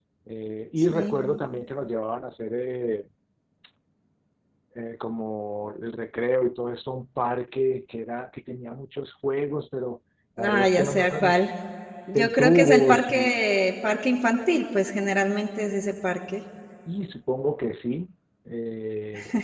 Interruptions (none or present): present